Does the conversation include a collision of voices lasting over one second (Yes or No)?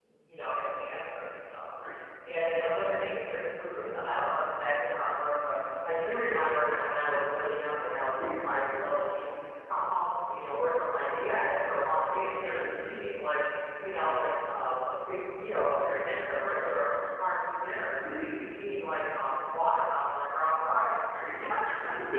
No